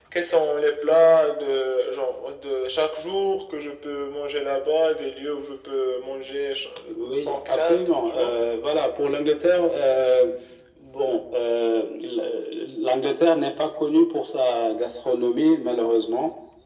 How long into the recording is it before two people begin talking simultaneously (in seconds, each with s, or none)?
7.1 s